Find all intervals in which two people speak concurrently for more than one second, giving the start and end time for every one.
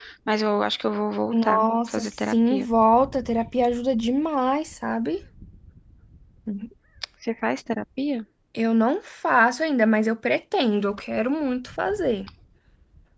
1.3-2.7

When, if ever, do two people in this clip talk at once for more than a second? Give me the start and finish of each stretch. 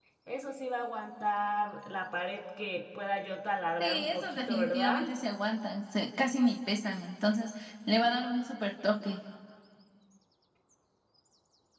3.8-5.0

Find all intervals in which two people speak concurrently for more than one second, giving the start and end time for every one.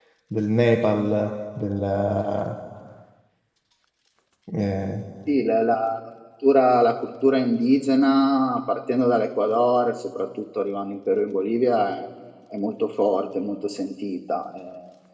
none

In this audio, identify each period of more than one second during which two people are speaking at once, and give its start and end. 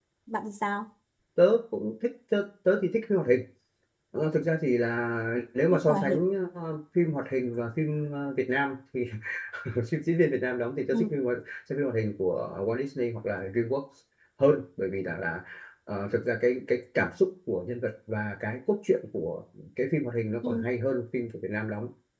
none

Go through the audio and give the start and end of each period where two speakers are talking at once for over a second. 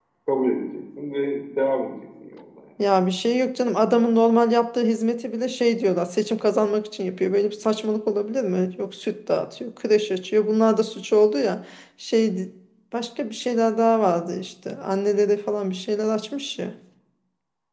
none

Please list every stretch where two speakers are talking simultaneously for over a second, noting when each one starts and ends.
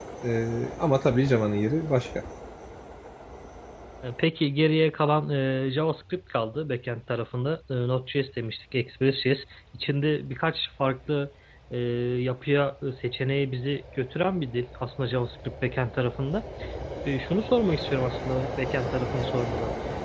none

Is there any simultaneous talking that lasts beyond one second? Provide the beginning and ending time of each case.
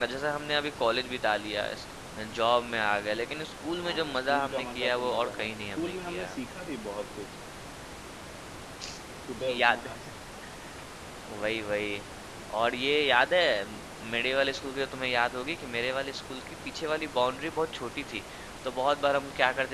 3.8-6.3

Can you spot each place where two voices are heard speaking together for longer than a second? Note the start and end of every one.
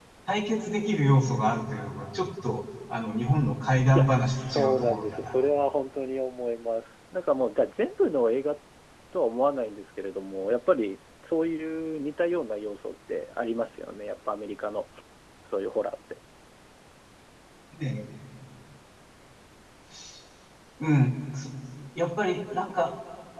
3.9-5.3

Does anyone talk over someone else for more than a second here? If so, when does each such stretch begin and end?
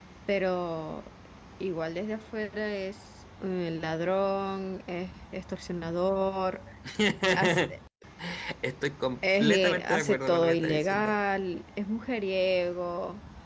9.4-11.1

